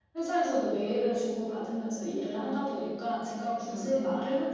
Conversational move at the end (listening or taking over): listening